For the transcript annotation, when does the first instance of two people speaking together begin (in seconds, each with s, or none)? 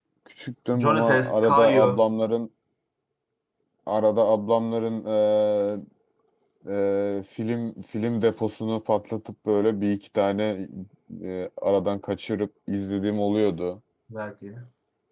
0.8 s